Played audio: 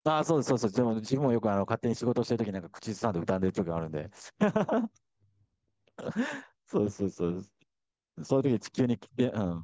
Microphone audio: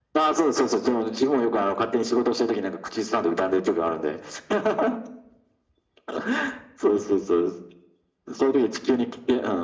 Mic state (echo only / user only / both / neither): echo only